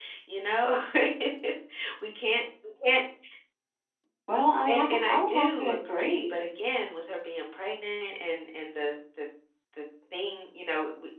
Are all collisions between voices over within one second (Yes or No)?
No